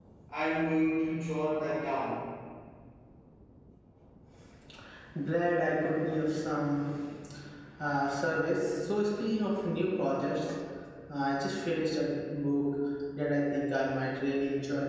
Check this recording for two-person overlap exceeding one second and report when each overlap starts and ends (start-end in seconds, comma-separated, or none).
none